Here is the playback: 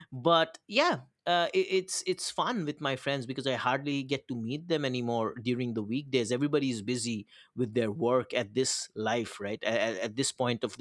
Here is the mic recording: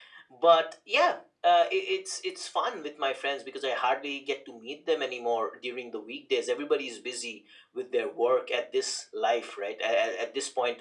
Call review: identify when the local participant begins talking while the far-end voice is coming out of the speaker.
none

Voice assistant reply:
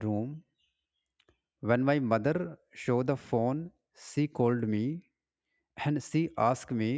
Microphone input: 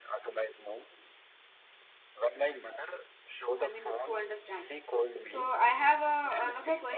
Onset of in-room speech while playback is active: 3.6 s

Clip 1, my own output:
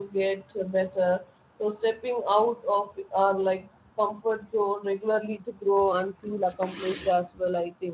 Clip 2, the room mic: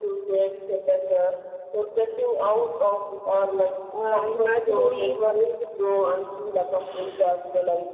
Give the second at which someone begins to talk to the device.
3.9 s

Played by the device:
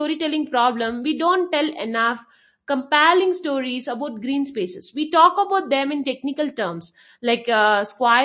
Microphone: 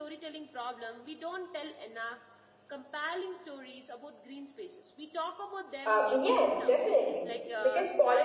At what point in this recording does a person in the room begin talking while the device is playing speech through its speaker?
5.8 s

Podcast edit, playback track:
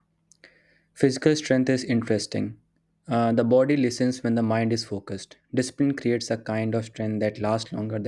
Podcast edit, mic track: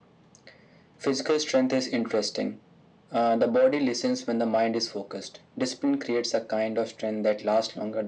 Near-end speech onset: none

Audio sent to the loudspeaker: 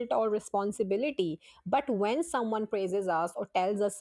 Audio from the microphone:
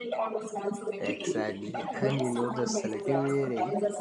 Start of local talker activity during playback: 1.0 s

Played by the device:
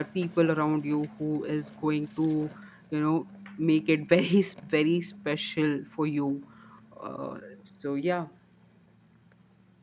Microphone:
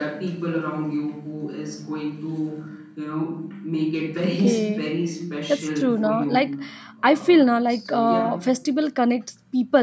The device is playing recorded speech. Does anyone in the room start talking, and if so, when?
4.2 s

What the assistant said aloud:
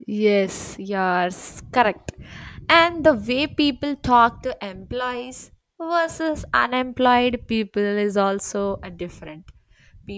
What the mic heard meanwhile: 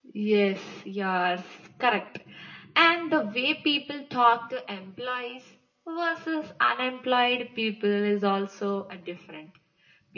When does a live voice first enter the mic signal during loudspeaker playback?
none

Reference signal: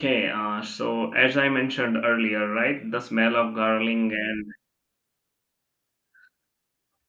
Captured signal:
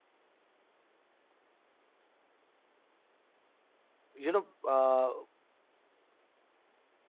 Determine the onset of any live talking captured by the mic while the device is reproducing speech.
4.3 s

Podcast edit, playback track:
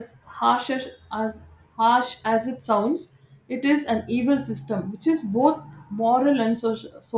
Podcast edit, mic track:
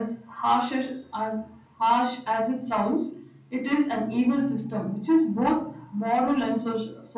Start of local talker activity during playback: none

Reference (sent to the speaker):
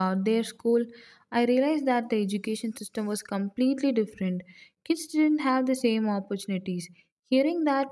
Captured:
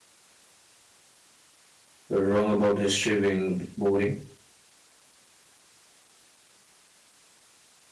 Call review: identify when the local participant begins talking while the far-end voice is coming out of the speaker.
2.1 s

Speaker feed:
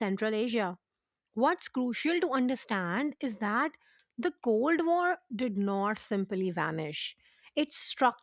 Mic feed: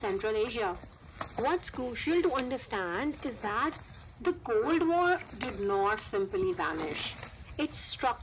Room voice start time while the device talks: none

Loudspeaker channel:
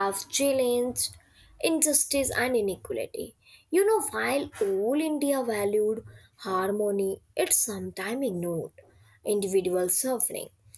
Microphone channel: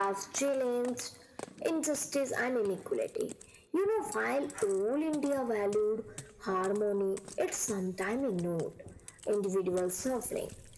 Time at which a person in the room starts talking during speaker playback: none

